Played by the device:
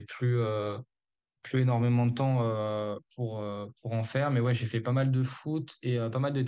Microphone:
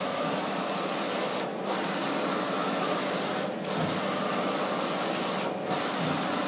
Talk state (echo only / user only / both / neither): neither